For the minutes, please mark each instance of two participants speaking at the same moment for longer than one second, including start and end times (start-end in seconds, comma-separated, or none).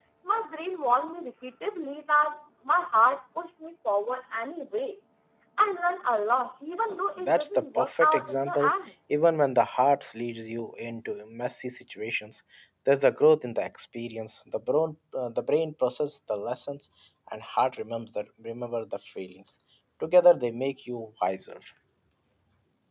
7.2-8.7